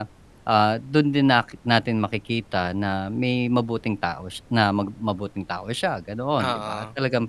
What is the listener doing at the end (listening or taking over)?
listening